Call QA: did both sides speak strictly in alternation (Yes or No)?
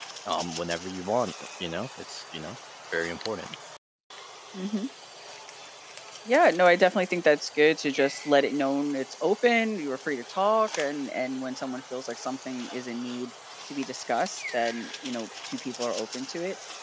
Yes